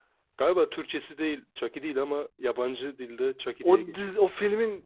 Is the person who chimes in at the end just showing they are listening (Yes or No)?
No